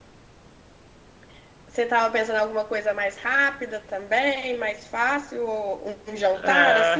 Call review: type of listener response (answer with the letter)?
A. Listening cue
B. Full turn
B